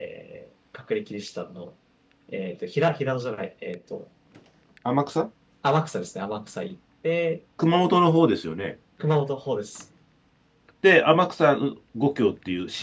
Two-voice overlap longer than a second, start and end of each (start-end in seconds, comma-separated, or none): none